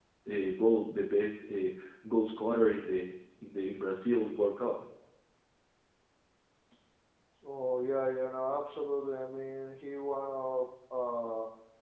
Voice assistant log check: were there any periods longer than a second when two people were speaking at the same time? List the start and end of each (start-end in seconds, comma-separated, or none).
none